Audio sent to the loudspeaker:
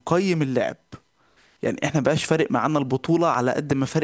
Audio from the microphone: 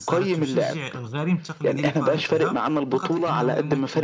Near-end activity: present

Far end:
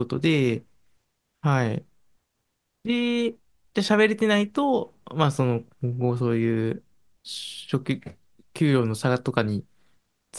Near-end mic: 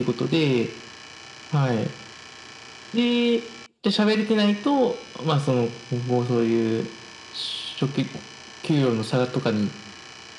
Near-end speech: none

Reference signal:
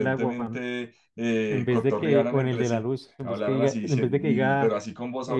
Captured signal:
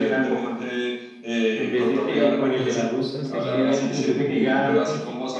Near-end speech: present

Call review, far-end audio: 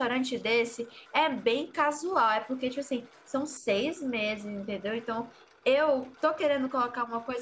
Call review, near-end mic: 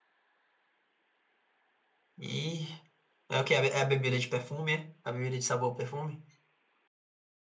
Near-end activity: present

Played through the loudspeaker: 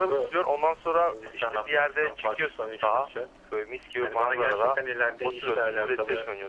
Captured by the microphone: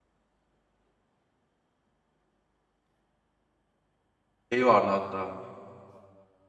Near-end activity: present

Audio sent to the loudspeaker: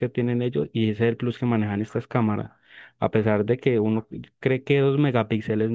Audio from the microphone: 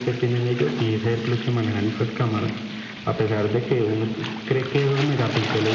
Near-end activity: none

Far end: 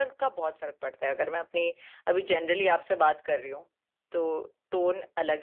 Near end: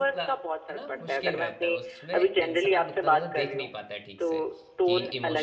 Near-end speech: present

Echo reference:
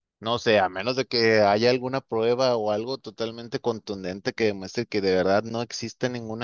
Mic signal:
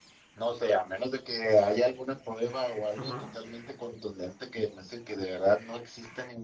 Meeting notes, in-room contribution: present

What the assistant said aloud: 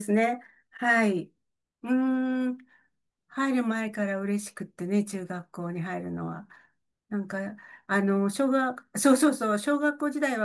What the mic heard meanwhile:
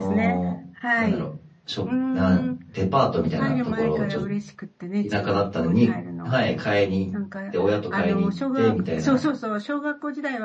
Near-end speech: present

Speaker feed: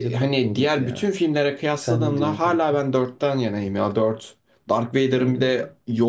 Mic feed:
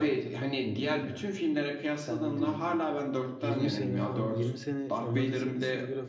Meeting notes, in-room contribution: present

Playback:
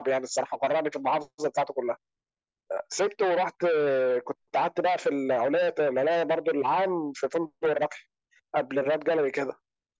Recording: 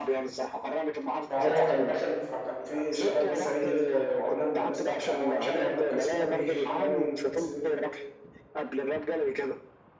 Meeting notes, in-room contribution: present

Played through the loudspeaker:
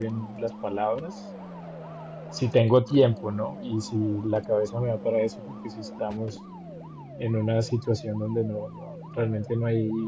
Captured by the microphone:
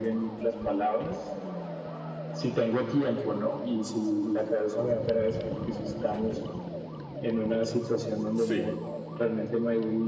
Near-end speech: present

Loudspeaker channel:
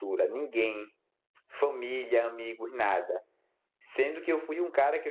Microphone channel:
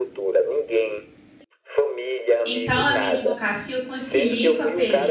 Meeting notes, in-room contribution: present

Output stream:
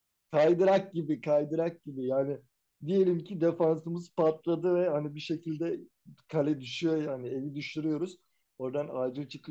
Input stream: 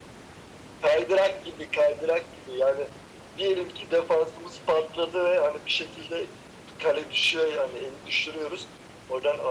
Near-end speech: none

